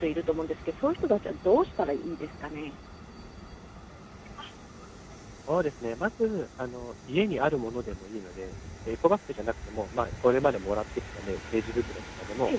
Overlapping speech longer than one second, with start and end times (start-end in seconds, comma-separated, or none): none